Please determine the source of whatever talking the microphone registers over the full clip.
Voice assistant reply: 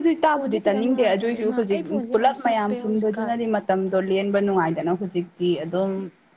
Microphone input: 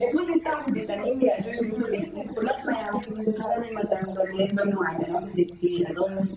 echo only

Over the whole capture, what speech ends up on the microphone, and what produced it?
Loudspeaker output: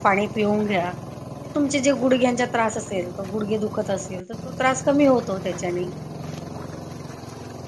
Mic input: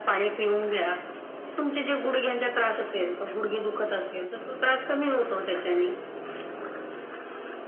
echo only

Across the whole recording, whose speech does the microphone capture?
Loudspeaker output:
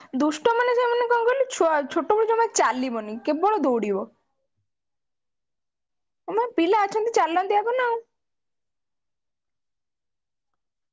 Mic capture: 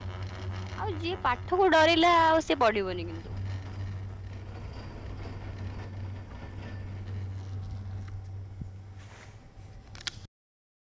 user only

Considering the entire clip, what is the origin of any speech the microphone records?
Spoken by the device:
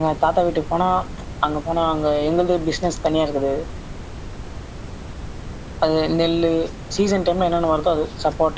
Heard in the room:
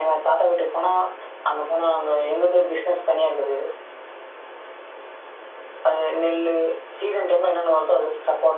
echo only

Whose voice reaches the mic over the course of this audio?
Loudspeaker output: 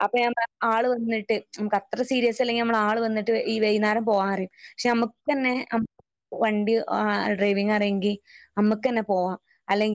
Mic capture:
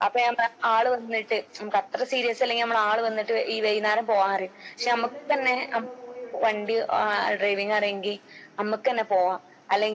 both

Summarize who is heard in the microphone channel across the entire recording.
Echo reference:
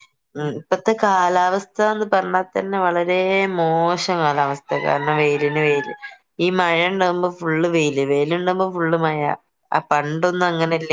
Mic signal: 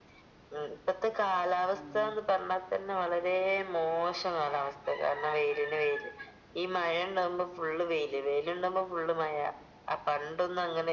both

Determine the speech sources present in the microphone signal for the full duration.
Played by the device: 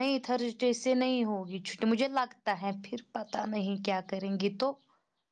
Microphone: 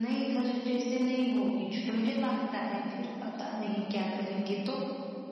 echo only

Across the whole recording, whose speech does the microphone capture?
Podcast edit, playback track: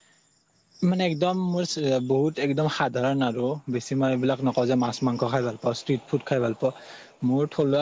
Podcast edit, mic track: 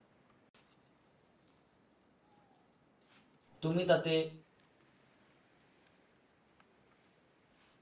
user only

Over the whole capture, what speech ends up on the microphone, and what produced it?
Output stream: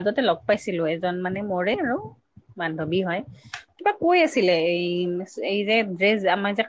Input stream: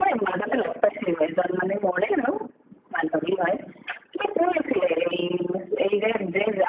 echo only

